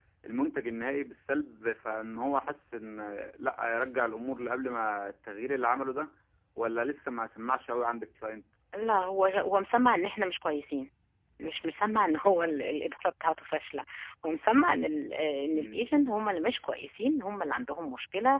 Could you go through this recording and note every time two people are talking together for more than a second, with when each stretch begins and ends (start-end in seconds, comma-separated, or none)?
none